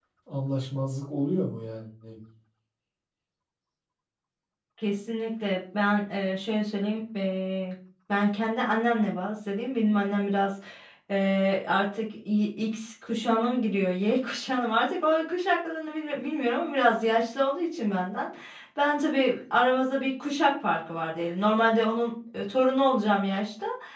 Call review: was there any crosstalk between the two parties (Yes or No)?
No